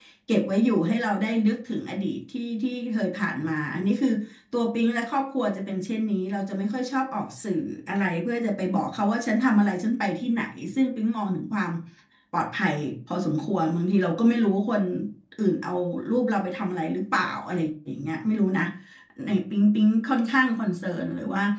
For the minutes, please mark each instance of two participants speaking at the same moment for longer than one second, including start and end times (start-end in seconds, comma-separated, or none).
none